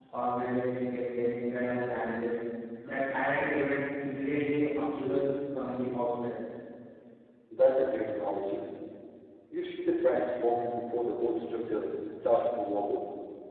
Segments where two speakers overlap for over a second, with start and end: none

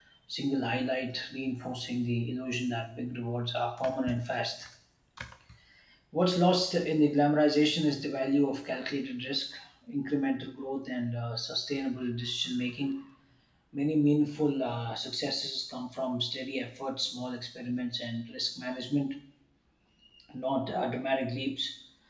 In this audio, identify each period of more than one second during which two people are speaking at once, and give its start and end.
none

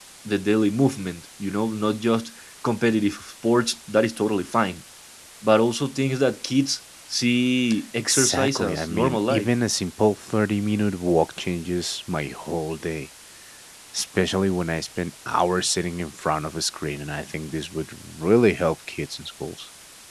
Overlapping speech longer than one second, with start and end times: 8.0-9.5

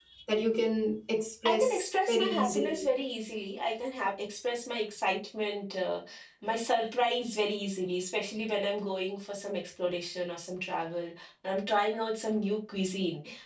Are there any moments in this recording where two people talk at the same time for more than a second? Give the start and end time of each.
1.4-2.9

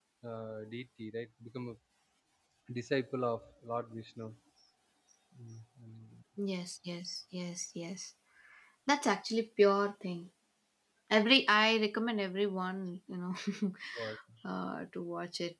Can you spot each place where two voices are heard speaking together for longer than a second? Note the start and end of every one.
none

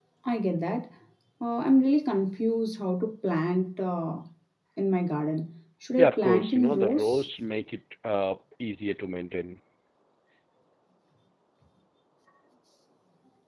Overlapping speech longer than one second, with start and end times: 6.0-7.3

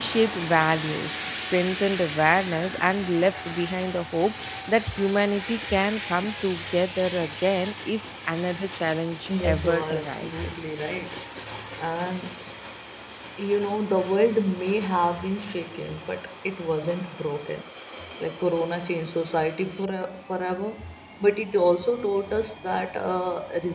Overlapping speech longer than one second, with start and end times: 9.4-10.7

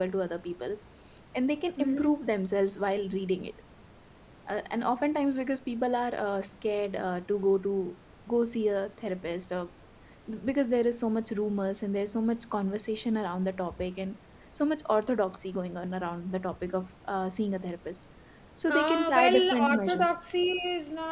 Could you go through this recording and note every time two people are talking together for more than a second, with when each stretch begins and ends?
18.7-20.1

